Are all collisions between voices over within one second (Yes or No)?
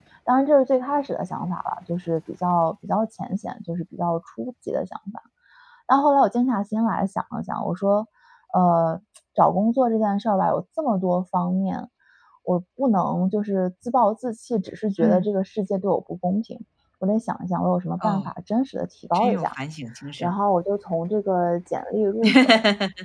Yes